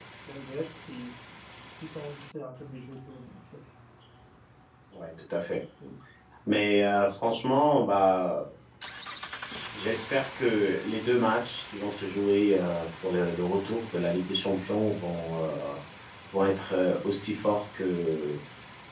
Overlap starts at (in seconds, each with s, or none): none